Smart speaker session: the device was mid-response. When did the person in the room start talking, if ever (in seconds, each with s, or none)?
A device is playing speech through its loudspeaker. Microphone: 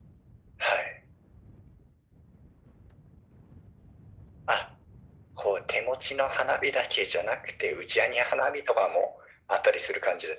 none